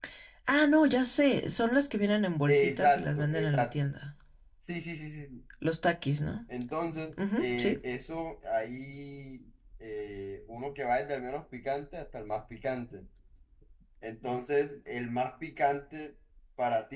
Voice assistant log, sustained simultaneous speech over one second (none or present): present